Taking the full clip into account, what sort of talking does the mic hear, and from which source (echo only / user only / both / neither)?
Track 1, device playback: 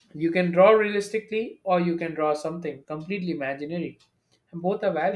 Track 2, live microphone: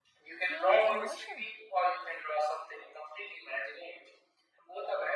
both